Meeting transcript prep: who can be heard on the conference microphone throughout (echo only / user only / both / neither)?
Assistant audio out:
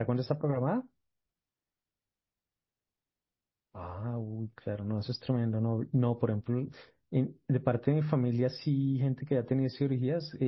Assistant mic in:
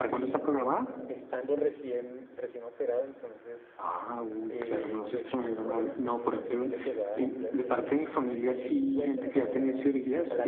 both